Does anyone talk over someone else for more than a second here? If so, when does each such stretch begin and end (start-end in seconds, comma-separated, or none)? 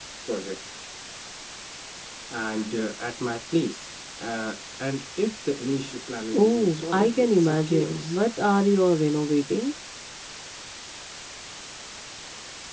6.3-8.2